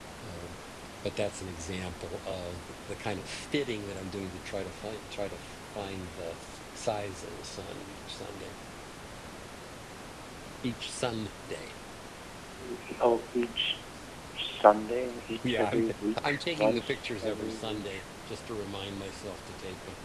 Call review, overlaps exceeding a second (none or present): present